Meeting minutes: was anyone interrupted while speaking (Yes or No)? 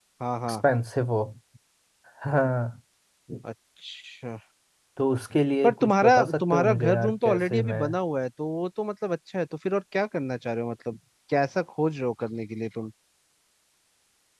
Yes